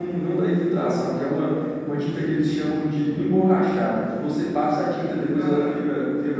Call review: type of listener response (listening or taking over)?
listening